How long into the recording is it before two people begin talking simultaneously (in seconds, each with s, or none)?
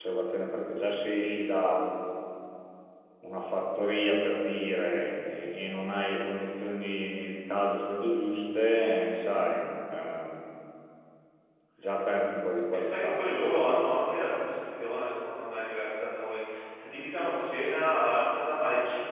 12.7 s